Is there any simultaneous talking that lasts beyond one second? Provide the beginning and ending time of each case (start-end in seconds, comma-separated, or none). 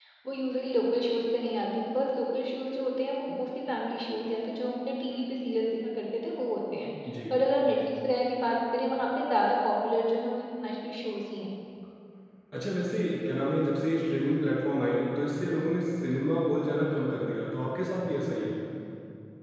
none